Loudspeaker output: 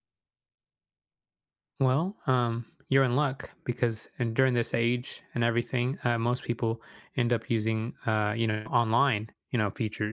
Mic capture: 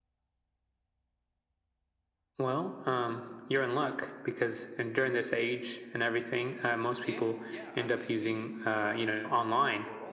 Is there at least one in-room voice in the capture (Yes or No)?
Yes